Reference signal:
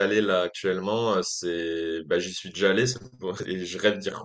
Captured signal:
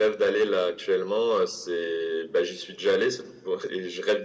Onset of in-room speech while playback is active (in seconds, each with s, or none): none